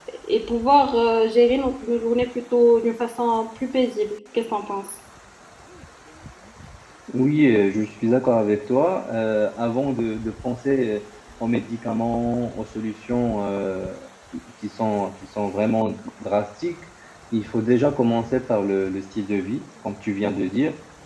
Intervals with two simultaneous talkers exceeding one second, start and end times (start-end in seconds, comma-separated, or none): none